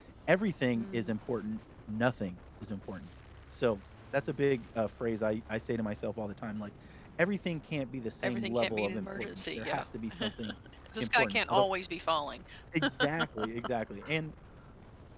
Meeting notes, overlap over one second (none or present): present